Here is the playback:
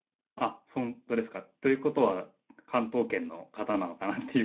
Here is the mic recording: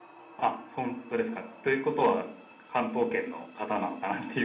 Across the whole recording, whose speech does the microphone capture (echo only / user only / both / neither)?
echo only